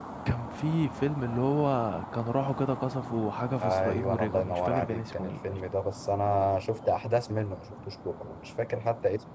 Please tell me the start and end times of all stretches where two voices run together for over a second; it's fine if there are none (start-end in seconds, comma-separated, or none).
3.6-5.6